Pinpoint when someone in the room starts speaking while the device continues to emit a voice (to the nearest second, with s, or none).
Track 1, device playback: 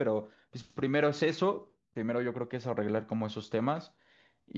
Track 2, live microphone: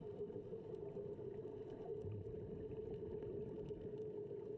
none